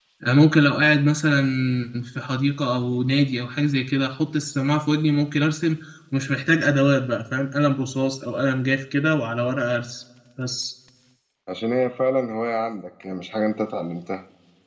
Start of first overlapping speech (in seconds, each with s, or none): none